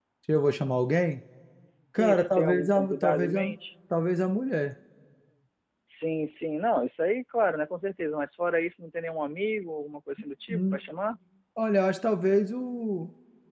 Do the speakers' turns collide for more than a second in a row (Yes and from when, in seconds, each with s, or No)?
Yes, from 2.0 s